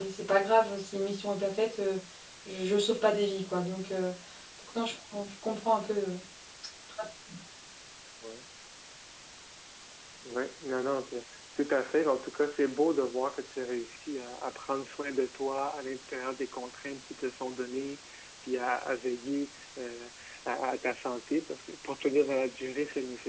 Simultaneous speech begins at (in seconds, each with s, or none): none